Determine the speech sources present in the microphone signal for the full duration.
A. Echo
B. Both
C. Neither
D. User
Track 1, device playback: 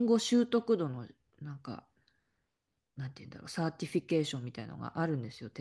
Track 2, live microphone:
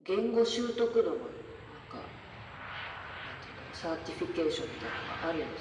A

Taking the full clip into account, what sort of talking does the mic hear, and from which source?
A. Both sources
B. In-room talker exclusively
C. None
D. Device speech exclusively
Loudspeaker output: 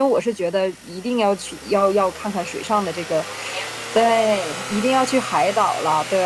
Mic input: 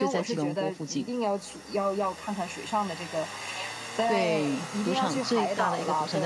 A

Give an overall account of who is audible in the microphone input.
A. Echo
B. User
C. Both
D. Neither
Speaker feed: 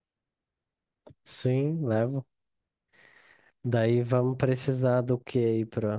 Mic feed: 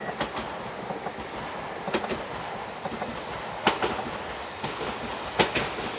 D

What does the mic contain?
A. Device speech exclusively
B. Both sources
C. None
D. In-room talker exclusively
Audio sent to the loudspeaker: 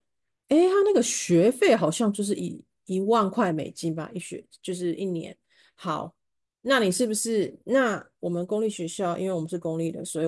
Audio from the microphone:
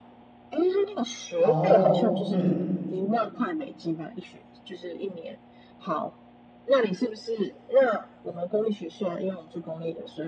B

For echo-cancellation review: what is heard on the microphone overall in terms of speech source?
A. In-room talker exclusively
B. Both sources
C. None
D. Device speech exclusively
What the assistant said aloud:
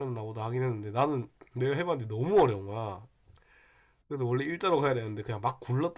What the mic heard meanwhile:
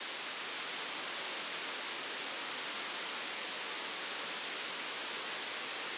C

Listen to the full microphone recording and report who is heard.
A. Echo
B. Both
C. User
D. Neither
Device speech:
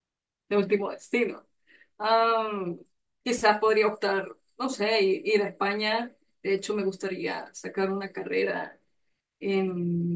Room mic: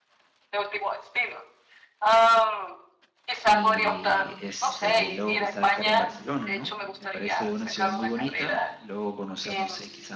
B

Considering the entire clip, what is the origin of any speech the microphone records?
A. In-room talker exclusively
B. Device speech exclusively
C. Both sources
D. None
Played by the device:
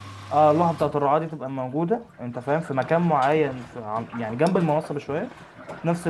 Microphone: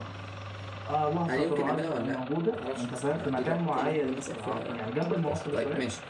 C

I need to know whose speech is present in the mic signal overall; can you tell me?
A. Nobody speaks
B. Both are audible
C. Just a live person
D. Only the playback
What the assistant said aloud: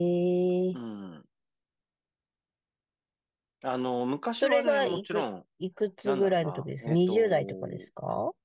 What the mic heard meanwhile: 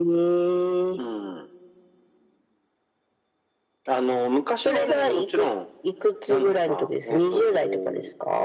D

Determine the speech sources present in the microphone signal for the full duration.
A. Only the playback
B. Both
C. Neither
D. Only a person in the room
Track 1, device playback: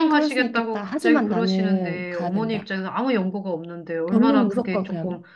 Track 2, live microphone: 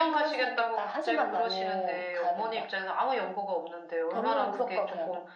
A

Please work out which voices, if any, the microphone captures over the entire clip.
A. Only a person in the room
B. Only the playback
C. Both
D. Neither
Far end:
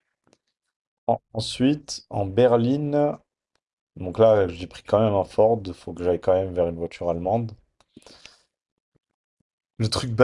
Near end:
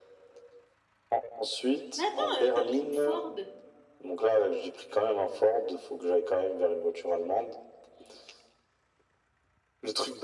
C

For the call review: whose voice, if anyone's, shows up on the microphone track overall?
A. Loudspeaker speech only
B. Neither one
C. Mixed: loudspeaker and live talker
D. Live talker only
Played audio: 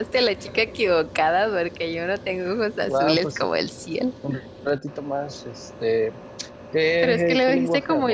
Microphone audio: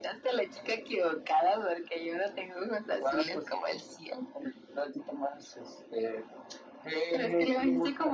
A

